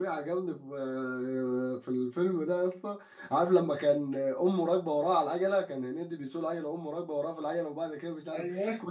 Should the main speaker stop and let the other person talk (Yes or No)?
No